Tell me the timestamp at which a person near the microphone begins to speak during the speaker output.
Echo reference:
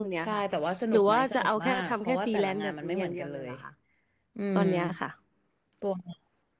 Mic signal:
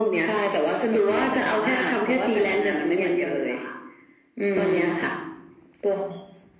none

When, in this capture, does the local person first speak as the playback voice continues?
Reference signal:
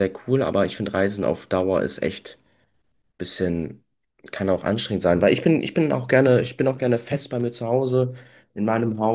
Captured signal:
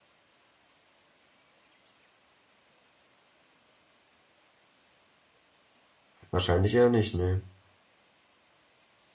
6.3 s

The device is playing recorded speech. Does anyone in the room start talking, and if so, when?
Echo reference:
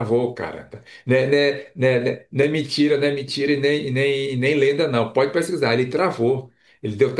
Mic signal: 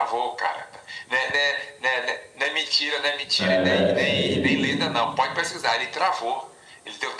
3.4 s

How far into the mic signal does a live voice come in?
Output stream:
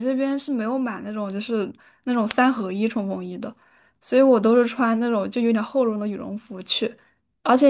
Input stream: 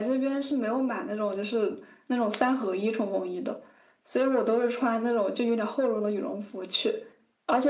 none

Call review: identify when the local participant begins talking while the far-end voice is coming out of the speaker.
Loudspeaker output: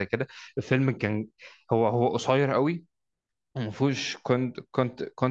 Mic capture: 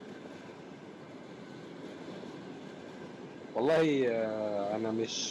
3.5 s

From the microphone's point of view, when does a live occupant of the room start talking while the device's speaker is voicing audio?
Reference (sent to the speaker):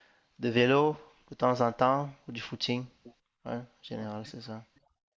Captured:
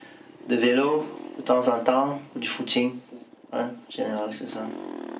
none

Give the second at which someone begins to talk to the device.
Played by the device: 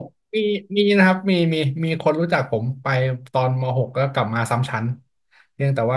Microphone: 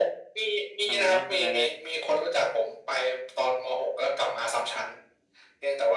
0.9 s

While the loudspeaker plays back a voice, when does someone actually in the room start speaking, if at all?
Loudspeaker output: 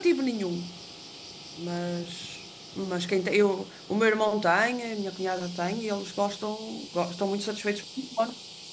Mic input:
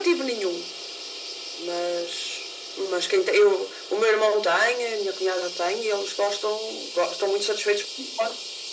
none

